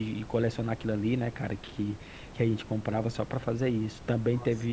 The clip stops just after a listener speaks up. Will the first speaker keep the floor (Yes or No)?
Yes